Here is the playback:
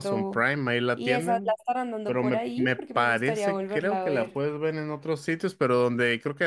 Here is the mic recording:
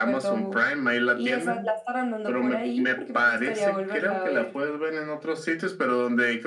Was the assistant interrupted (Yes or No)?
No